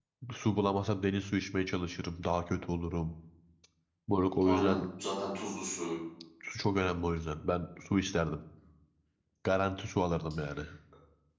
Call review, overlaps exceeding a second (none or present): none